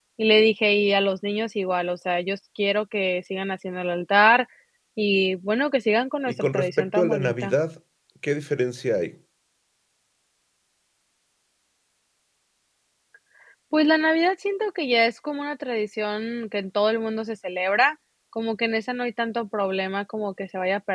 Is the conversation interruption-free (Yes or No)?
No